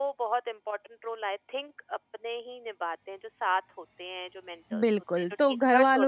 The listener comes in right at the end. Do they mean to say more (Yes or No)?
Yes